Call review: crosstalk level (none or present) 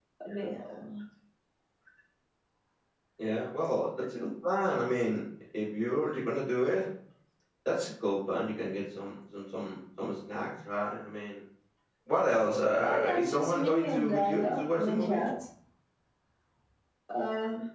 present